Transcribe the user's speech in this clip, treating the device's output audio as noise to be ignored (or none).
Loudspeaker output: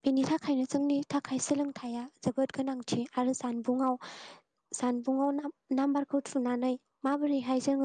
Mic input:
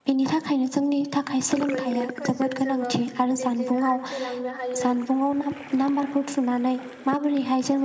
गुगोल मेप फोरजों जोङो बिब्दिनो हान्थिलांनो हायो